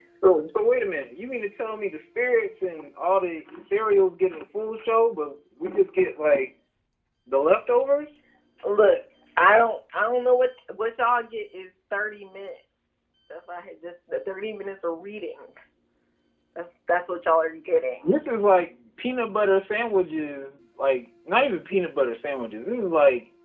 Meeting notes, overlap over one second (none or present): none